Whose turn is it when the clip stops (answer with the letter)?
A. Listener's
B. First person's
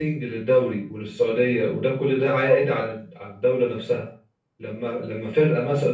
B